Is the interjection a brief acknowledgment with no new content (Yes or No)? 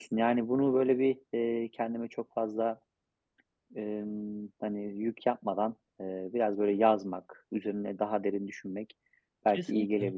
Yes